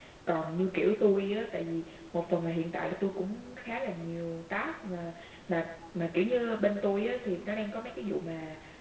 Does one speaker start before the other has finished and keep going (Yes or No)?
No